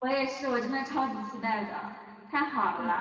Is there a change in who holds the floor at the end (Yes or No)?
No